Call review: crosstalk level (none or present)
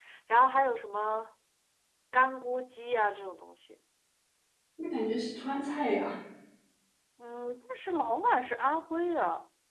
none